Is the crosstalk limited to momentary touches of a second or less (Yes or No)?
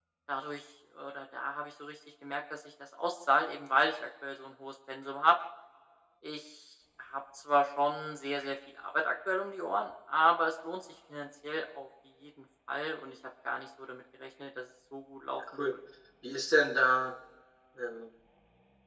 Yes